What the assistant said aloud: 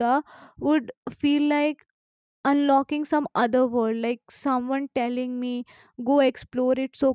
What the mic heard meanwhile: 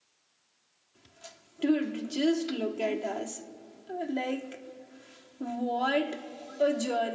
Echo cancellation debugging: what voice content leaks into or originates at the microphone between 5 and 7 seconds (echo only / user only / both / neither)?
user only